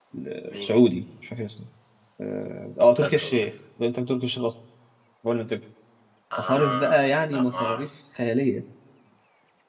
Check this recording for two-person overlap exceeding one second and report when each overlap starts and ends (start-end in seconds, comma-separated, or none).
6.4-7.8